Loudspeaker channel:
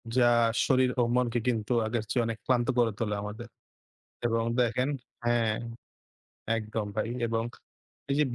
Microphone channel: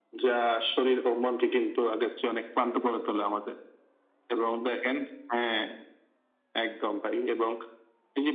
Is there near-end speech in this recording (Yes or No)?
No